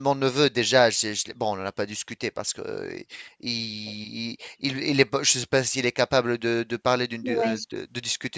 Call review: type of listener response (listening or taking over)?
listening